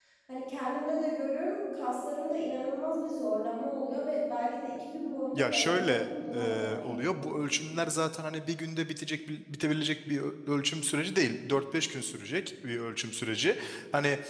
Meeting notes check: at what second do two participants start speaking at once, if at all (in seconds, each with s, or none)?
5.3 s